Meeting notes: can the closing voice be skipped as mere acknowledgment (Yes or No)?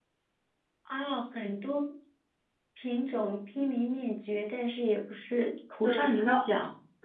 No